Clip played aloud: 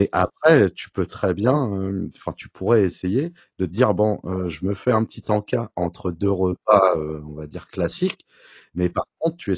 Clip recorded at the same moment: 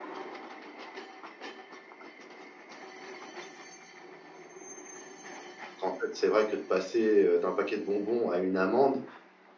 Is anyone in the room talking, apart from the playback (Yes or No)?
Yes